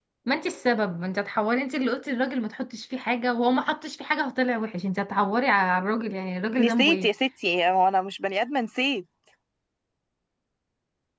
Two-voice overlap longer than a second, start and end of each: none

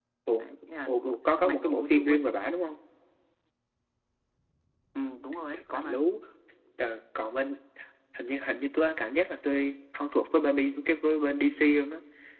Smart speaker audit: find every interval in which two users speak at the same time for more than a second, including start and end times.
0.9-2.2

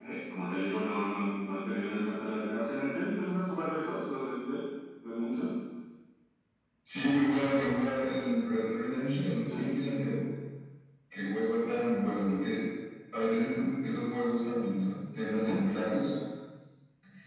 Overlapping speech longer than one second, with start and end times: none

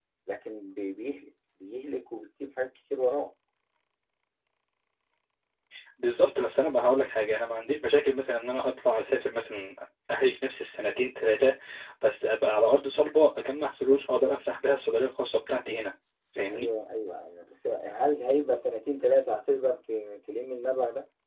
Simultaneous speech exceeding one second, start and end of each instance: none

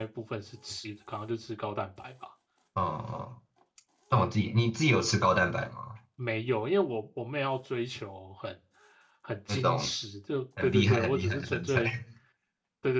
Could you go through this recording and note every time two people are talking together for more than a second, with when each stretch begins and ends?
10.6-11.8

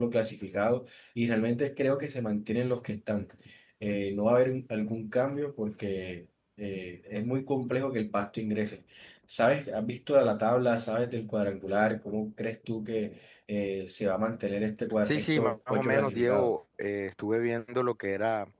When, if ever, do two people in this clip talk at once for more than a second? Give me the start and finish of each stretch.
15.0-16.5

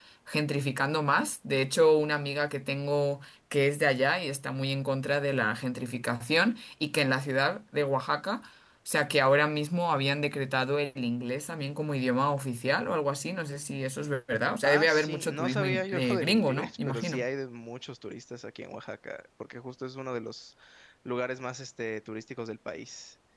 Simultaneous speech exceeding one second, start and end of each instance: 14.6-17.2

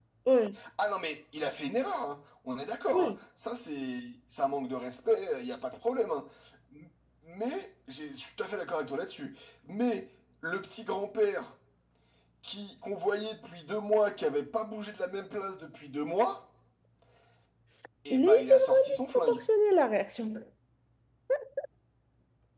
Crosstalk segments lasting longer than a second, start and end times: 18.1-19.4

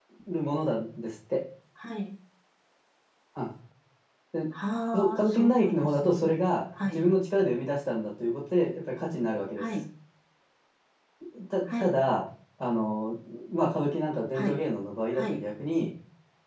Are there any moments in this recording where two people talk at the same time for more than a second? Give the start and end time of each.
4.9-6.2

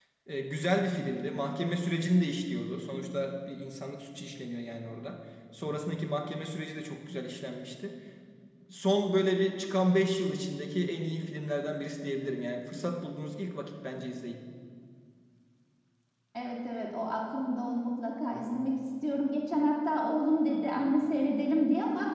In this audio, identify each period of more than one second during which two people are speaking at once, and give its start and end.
none

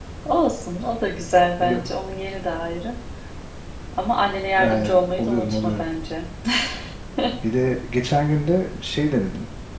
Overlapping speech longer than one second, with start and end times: 4.6-5.9

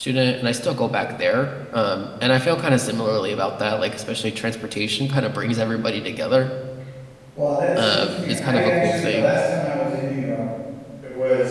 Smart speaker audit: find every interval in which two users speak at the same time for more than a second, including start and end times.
7.8-9.3

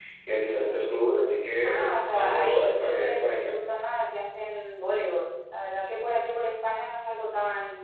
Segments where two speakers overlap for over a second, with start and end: 1.6-3.5

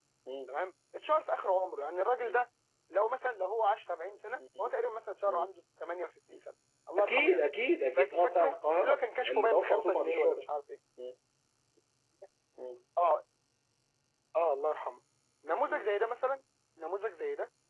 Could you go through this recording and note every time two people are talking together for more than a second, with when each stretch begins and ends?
8.0-10.4

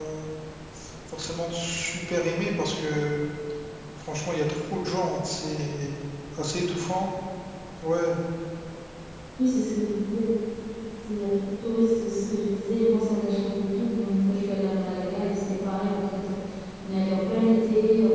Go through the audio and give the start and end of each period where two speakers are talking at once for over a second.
none

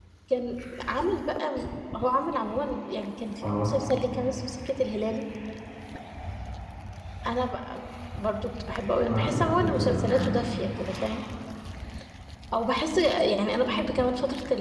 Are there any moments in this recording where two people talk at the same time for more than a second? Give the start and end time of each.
9.1-10.3

